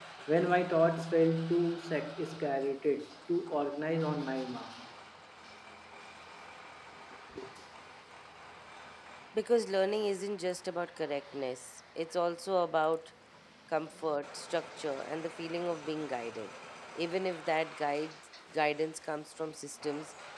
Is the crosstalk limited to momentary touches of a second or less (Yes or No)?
Yes